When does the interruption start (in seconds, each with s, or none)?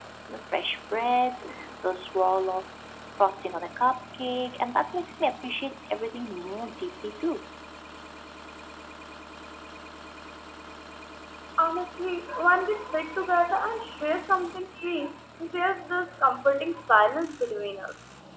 none